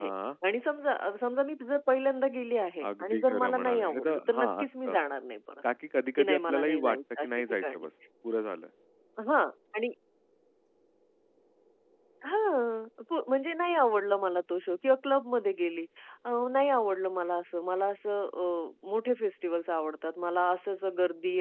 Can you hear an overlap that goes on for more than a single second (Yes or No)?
Yes